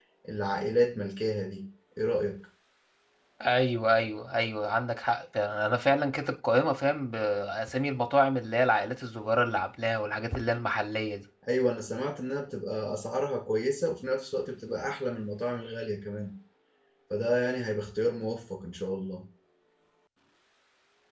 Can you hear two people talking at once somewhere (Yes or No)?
No